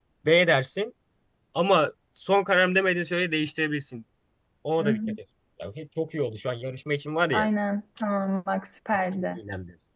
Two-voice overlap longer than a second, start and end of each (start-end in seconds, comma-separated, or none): none